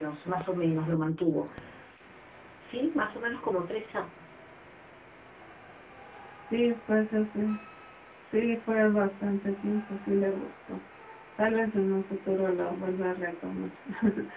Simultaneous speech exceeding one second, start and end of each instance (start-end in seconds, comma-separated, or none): none